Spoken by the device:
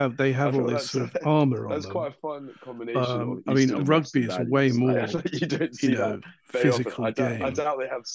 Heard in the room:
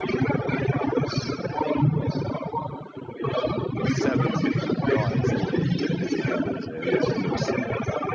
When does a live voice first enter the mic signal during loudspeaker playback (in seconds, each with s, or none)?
3.9 s